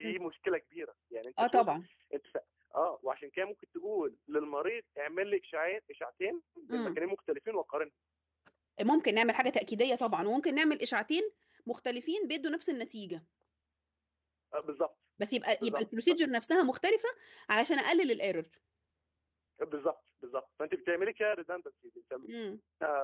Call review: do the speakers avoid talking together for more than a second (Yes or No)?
Yes